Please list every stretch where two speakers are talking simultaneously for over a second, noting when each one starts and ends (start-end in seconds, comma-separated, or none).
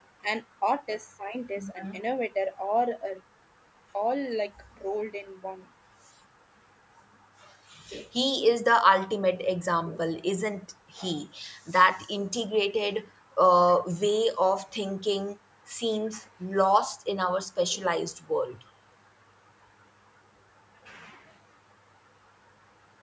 none